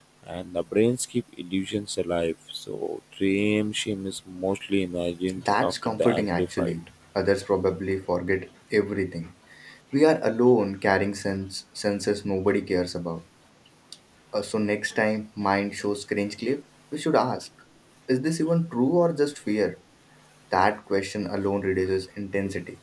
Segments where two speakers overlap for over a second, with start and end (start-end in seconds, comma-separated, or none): 5.3-6.7